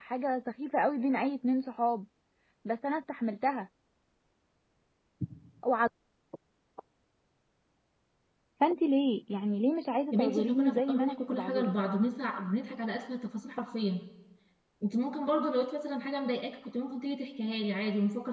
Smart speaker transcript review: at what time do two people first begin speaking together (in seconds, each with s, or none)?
10.1 s